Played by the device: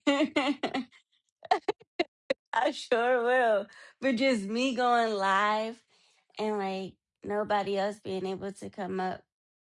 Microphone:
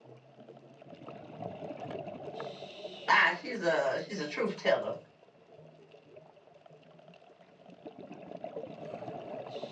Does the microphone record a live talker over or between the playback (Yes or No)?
Yes